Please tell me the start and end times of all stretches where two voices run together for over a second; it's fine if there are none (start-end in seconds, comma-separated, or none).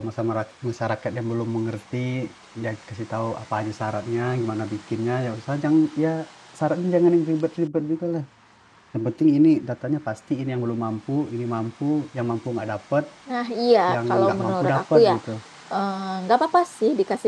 13.9-15.1